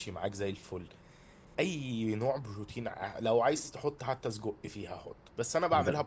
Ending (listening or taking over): listening